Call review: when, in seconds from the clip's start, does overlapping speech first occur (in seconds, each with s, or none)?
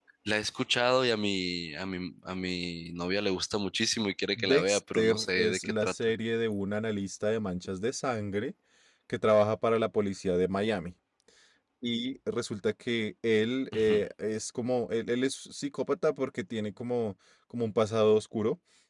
4.4 s